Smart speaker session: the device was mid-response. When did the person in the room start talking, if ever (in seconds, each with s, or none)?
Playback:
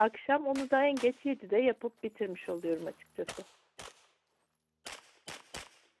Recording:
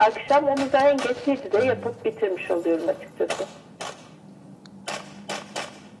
1.5 s